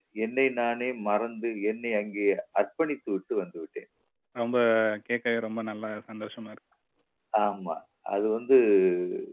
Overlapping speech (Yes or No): No